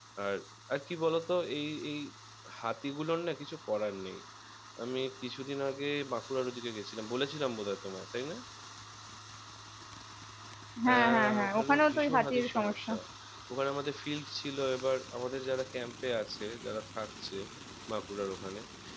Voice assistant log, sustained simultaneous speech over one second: present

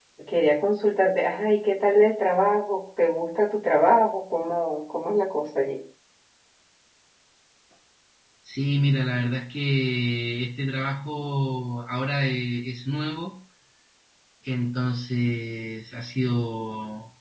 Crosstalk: none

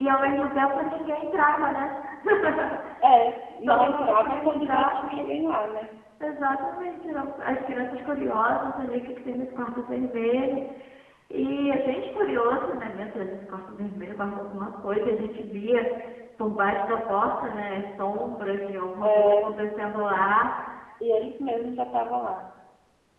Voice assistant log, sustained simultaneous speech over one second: present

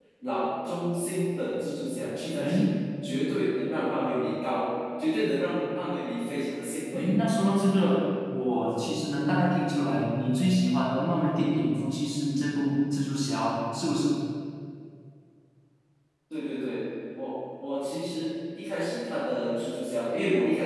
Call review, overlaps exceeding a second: none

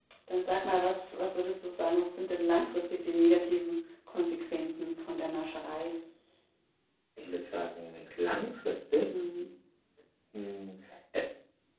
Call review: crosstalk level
none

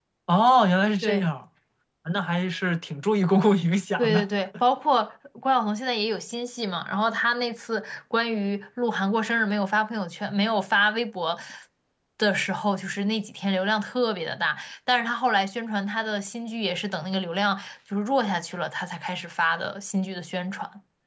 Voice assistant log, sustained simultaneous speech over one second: none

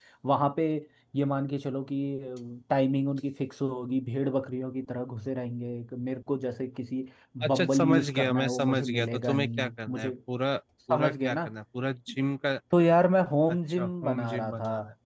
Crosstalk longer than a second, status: present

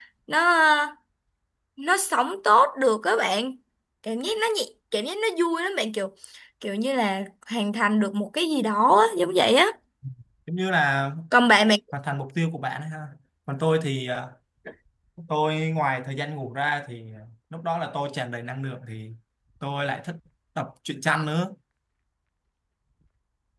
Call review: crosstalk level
none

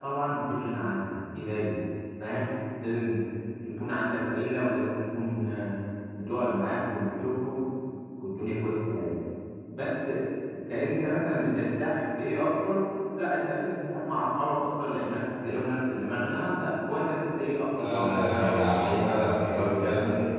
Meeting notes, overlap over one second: present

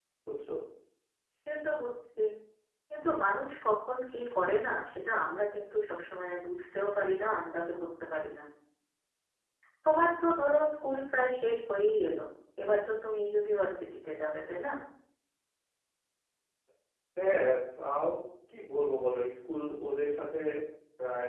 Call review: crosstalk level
none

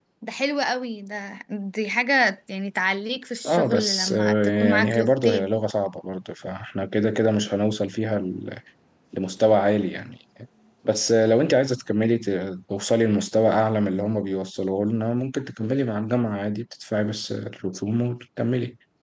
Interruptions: present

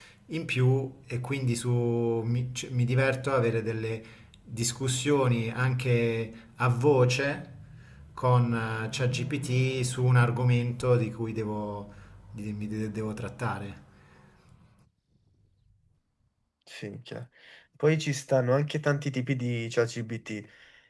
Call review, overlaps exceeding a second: none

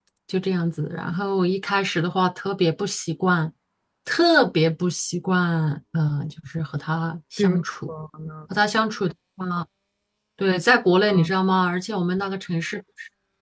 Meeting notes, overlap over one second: none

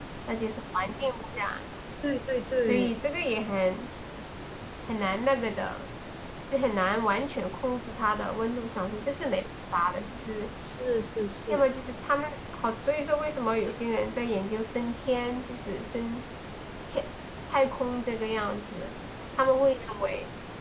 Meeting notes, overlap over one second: none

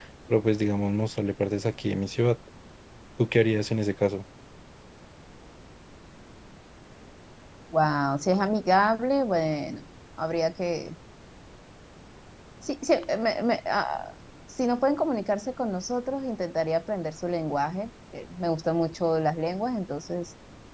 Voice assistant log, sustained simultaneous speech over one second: none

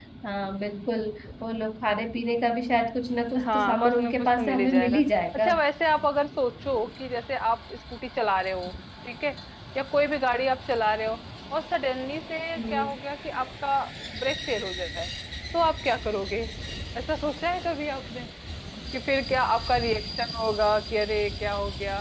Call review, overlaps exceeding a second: present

